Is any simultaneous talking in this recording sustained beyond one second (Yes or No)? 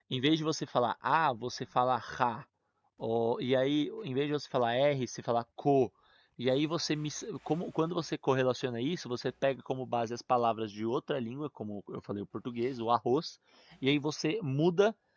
No